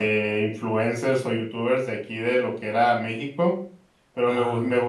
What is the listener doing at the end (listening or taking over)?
listening